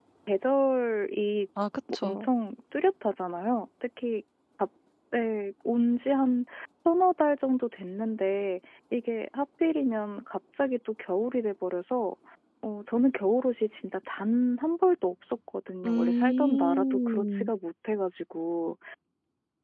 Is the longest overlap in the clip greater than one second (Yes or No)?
Yes